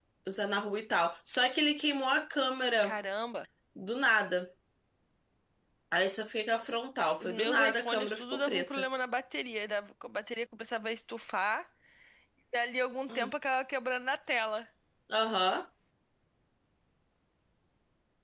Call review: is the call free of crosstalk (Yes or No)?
No